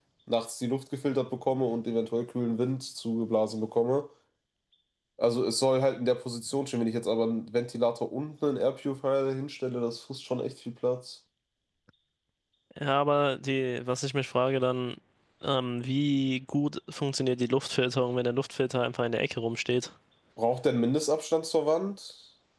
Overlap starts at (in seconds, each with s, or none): none